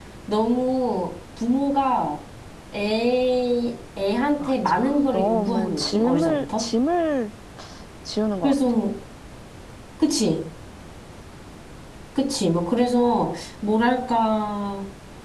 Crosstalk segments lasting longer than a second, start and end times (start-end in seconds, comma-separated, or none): 4.5-6.6